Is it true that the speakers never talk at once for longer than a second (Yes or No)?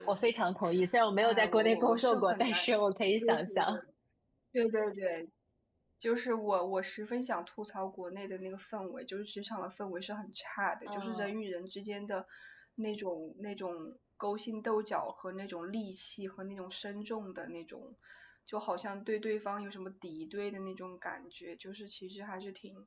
No